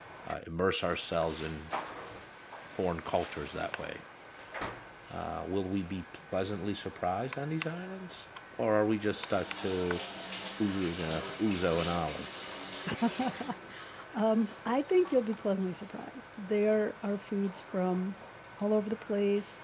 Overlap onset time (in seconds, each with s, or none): none